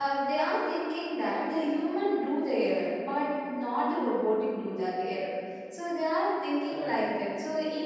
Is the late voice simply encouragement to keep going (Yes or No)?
Yes